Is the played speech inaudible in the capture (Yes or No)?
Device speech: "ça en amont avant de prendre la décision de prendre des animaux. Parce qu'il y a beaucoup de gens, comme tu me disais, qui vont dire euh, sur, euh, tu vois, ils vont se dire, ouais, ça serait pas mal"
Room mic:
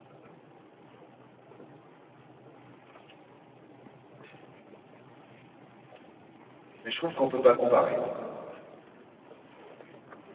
Yes